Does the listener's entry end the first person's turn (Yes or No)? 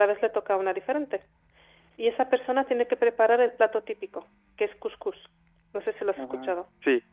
Yes